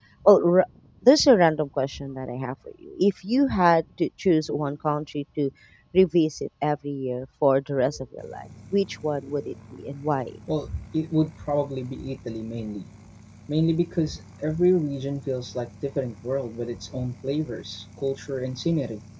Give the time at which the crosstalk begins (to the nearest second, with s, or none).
none